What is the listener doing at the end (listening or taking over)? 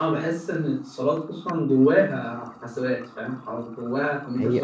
taking over